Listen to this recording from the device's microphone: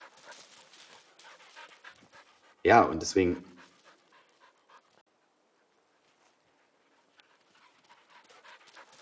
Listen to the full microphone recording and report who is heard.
user only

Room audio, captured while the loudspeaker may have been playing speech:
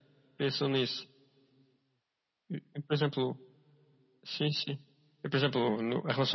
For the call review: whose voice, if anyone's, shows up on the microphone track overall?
echo only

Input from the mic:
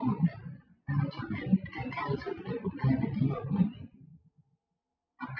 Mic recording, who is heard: echo only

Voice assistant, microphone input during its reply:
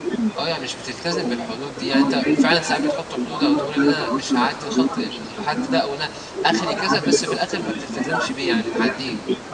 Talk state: both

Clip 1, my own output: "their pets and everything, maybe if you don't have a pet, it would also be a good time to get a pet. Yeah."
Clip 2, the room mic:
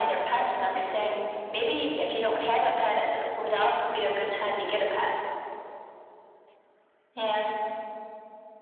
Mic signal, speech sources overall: echo only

